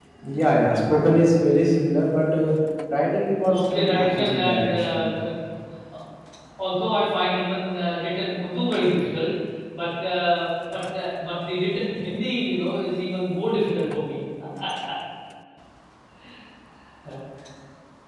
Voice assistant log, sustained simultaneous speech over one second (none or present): present